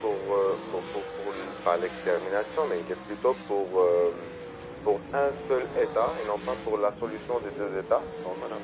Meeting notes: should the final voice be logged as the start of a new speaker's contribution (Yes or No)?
No